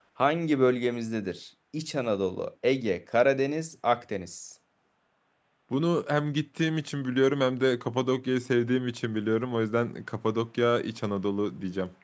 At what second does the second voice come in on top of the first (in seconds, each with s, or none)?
none